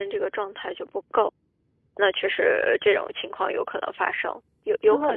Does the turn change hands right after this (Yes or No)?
Yes